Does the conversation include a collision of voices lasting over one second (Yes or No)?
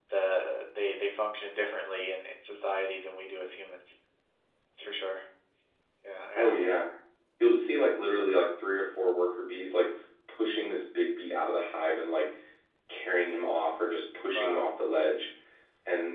No